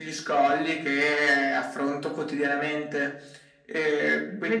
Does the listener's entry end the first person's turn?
Yes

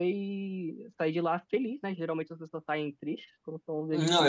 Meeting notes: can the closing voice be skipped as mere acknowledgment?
No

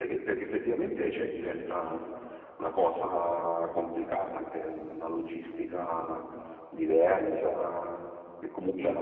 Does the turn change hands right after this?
No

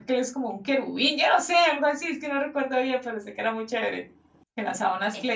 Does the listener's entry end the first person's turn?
No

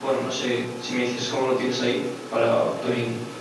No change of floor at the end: No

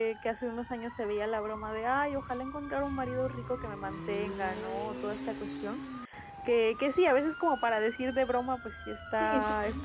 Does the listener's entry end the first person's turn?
No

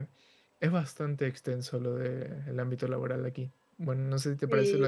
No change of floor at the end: No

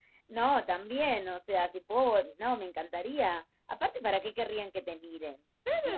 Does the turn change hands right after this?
Yes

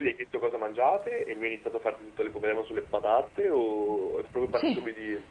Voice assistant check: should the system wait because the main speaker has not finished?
No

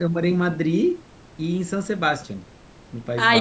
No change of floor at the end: No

